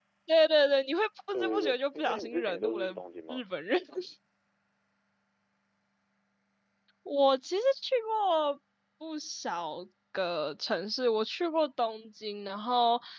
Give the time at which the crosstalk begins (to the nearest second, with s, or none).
1 s